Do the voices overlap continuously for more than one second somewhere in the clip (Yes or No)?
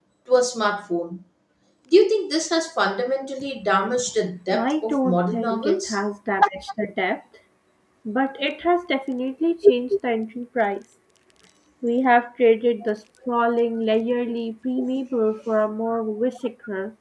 Yes